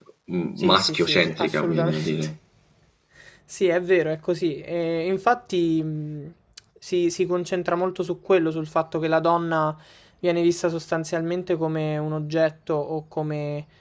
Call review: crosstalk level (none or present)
present